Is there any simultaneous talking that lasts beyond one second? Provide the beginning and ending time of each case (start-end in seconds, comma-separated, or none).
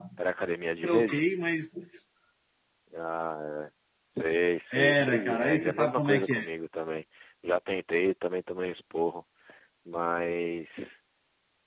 4.7-6.5